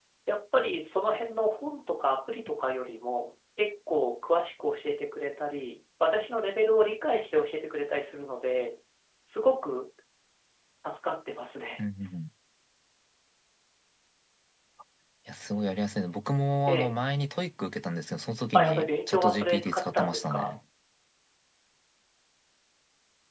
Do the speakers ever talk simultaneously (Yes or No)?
Yes